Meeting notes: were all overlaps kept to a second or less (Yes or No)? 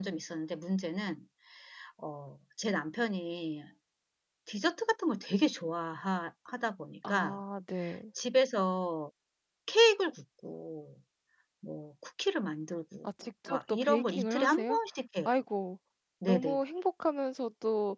No